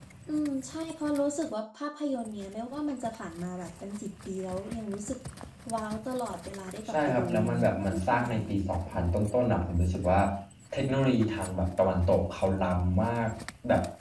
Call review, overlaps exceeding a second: present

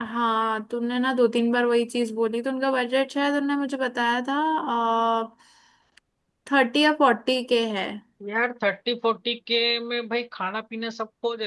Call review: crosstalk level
none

